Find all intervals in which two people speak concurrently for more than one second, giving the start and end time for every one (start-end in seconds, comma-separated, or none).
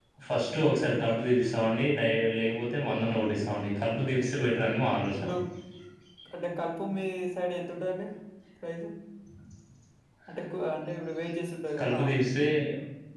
none